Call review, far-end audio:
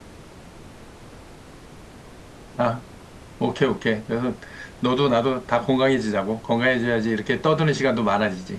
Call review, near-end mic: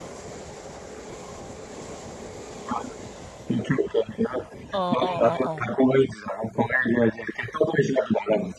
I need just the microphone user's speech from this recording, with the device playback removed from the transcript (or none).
어, 어, 어, 어.